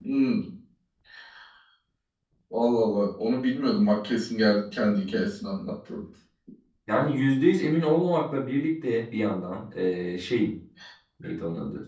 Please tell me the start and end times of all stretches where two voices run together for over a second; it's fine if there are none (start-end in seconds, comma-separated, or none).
none